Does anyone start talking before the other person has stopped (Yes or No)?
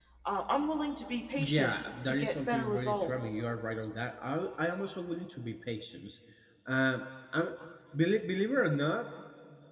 Yes